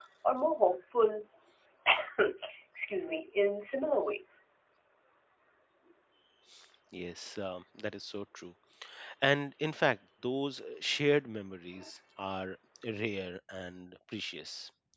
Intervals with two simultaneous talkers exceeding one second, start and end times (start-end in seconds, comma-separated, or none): none